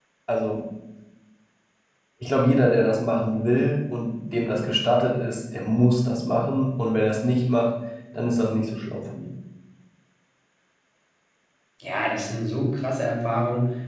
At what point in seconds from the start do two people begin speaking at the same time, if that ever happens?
none

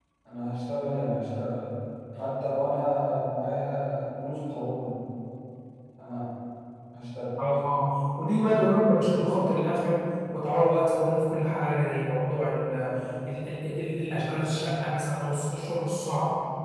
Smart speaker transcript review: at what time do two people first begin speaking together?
none

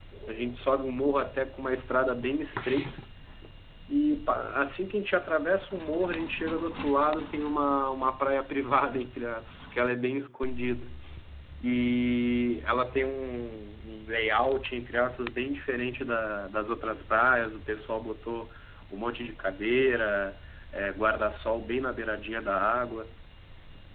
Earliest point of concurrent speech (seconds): none

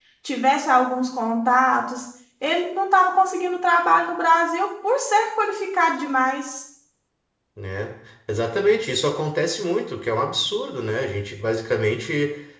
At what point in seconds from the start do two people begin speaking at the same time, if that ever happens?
none

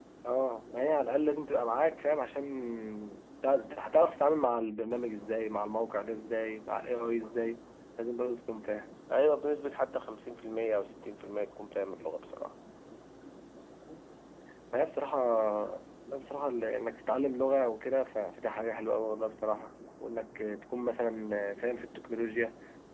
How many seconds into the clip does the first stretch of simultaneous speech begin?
none

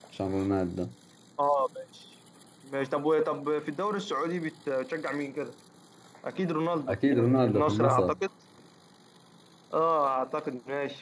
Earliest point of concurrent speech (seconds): 6.9 s

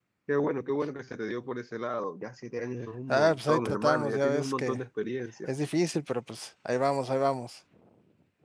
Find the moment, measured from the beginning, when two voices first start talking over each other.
3.1 s

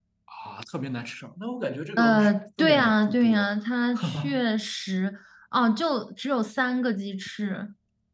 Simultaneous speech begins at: 2.0 s

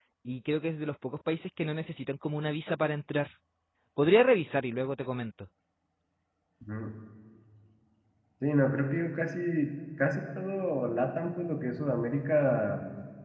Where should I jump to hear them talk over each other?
none

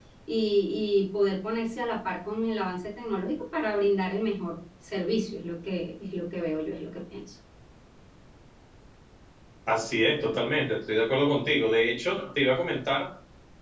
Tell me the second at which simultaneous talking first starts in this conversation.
none

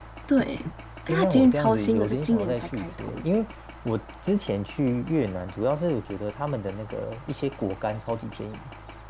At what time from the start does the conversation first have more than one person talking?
1.1 s

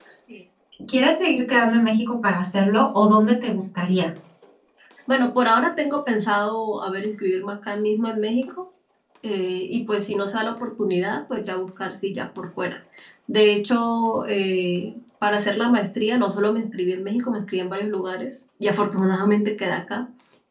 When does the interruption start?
none

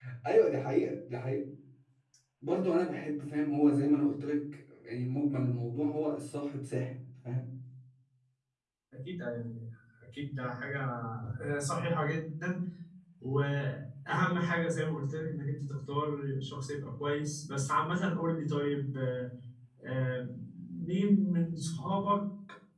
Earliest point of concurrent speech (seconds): none

